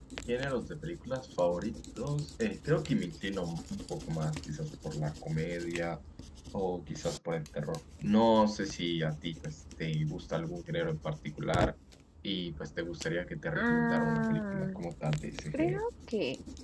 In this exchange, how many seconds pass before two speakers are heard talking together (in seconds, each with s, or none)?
13.6 s